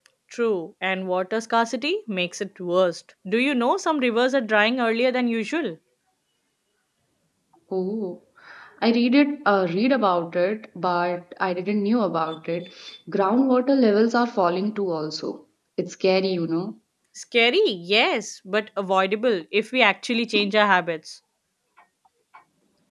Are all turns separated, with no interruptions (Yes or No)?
Yes